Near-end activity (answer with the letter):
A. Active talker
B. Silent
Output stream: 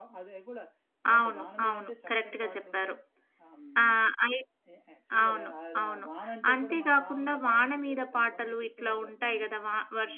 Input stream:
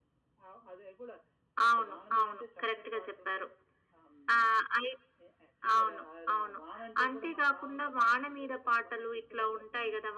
B